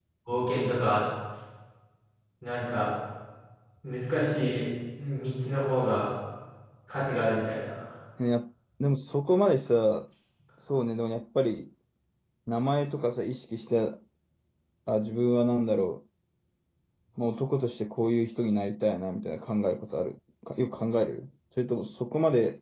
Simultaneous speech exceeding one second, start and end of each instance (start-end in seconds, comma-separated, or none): none